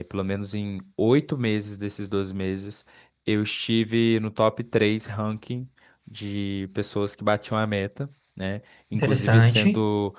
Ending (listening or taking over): listening